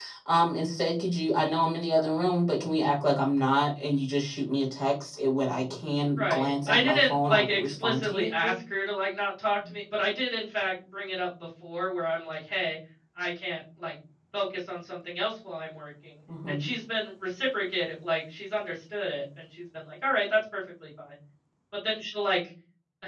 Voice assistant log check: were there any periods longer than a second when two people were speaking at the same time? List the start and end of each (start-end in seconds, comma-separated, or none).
6.2-8.5